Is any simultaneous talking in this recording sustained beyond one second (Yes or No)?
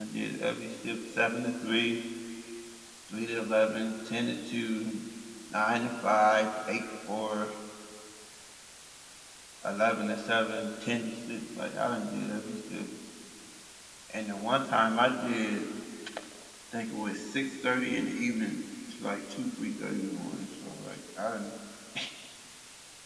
No